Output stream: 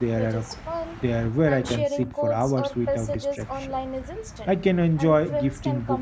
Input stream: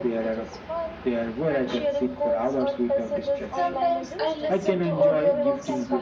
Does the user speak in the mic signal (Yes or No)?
Yes